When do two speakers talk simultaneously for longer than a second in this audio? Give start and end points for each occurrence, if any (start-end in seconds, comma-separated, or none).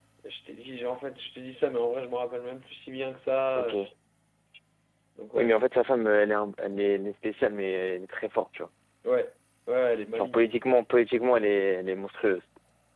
none